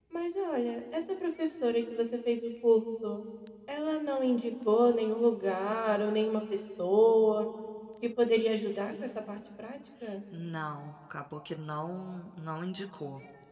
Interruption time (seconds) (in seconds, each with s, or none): none